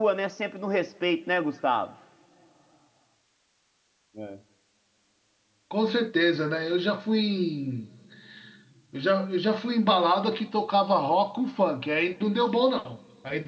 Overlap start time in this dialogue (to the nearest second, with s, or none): none